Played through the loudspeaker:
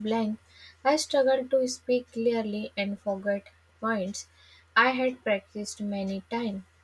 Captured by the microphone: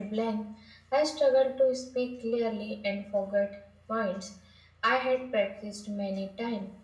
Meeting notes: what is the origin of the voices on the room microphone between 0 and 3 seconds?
echo only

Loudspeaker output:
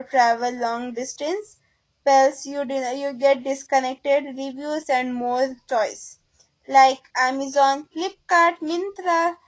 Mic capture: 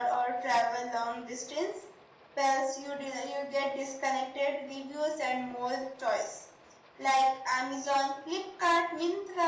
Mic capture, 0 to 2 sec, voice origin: echo only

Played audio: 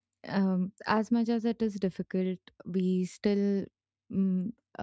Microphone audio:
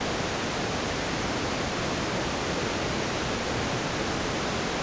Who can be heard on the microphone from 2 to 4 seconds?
neither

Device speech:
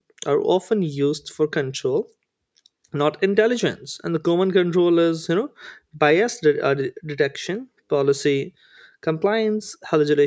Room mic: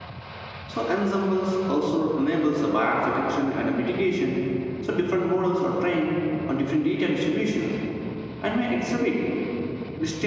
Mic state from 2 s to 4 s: user only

